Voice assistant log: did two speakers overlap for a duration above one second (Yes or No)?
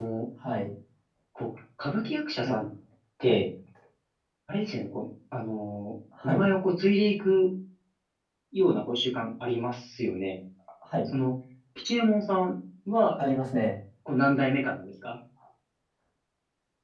No